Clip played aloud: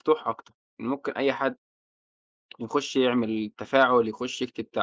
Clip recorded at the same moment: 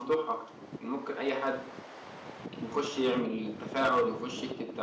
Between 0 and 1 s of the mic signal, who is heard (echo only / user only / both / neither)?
echo only